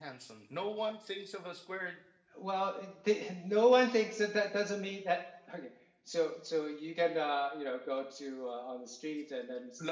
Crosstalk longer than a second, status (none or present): none